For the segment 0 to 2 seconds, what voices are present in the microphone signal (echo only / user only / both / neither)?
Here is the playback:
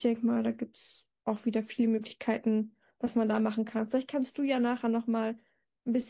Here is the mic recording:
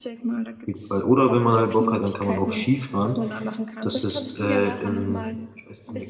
both